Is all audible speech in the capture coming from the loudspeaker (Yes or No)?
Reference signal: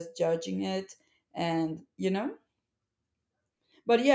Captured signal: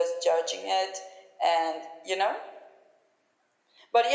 Yes